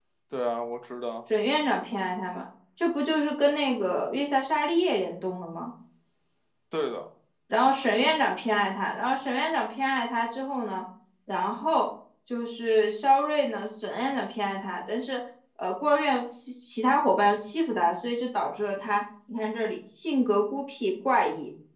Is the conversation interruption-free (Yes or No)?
Yes